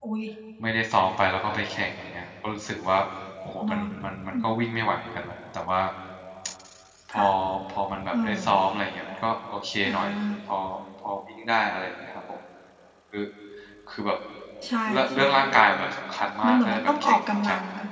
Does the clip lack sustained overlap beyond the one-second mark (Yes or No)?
No